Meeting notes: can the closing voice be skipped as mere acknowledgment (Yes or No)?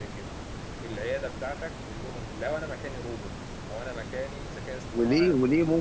No